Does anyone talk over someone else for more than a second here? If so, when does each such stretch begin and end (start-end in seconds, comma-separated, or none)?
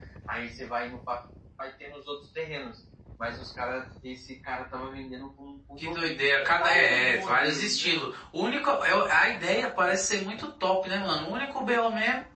5.8-8.1